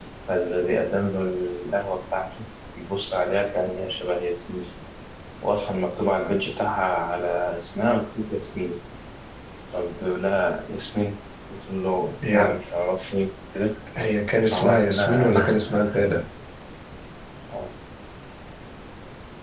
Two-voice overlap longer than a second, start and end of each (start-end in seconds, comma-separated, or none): 14.5-15.8